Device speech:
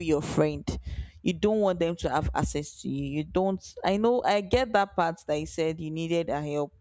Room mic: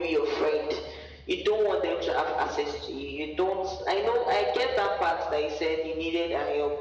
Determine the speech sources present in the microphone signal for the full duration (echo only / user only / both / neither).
echo only